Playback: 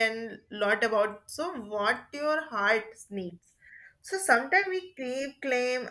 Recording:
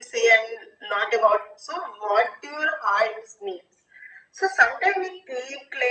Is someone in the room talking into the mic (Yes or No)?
No